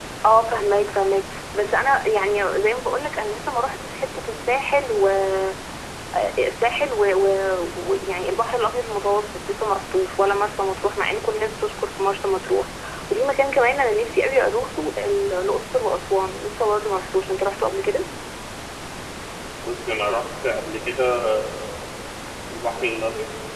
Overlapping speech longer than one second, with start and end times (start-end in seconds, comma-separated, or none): none